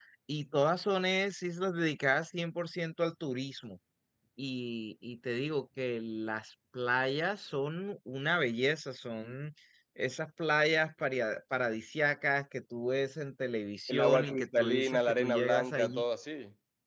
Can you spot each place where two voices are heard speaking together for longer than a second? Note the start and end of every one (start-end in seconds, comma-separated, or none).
13.9-16.0